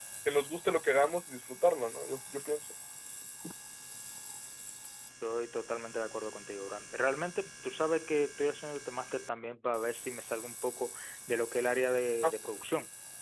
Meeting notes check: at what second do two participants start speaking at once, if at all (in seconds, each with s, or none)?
none